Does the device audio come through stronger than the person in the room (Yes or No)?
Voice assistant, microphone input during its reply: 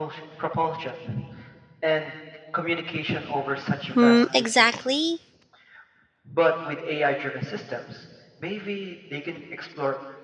No